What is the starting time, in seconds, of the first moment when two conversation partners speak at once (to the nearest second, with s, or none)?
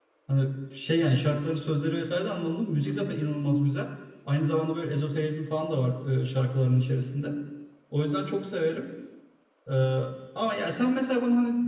none